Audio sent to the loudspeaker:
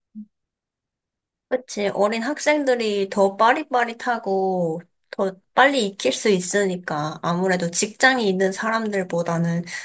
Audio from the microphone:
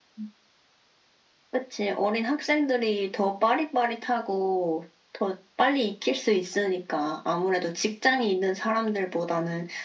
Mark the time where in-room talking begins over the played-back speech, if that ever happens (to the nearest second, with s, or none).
none